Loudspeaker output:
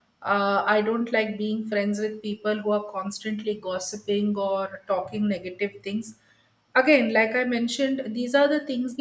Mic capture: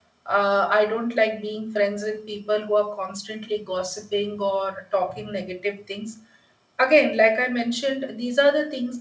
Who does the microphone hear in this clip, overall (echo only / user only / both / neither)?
echo only